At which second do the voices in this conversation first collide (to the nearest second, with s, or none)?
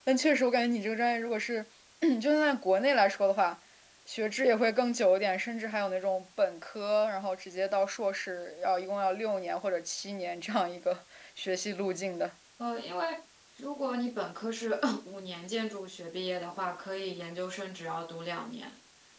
none